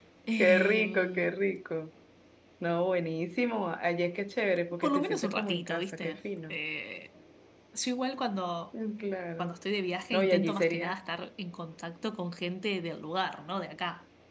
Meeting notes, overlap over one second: present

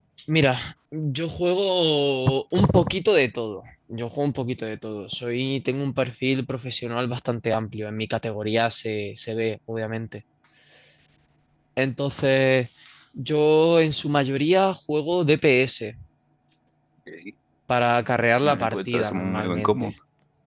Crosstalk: present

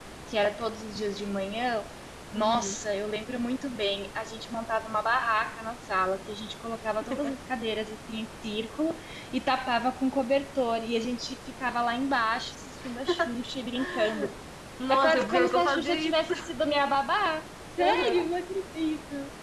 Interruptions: present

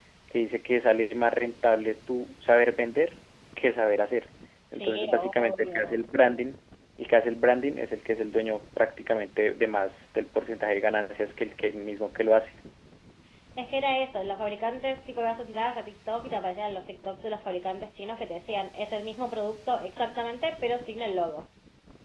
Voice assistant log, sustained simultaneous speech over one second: present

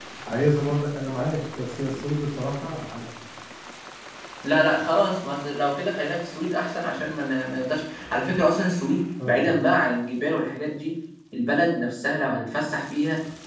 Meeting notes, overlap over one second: none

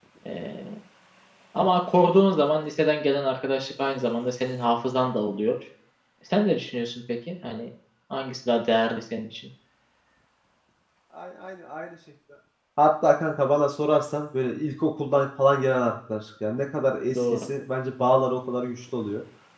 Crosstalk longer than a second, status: none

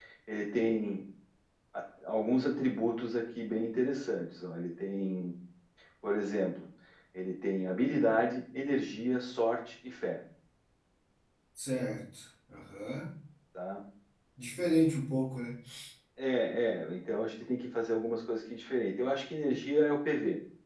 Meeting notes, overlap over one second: none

